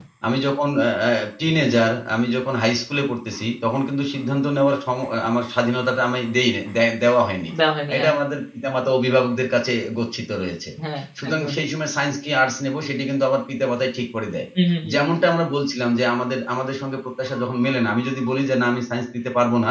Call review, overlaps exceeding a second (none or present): none